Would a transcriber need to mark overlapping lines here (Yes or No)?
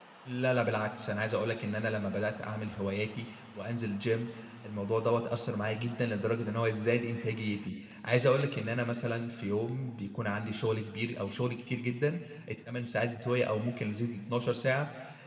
No